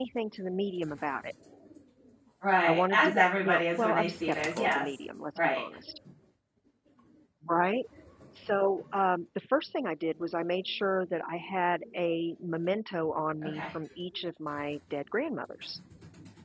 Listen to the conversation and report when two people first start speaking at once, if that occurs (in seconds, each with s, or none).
2.6 s